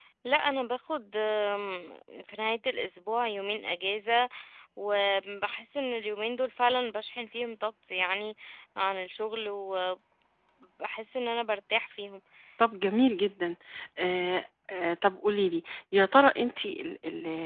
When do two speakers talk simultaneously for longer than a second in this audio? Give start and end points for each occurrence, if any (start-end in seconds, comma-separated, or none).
none